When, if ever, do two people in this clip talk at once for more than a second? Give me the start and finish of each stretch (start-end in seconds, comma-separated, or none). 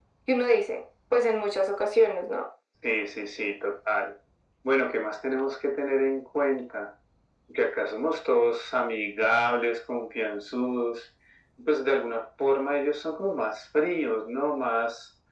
none